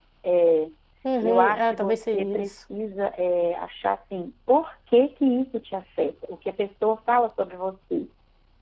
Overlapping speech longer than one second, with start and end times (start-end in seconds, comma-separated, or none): 1.2-2.5